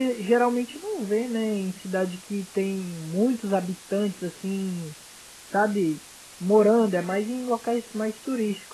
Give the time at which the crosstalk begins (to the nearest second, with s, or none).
none